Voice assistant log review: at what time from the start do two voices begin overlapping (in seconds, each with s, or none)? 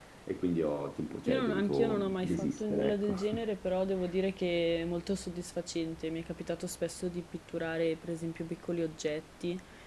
1.3 s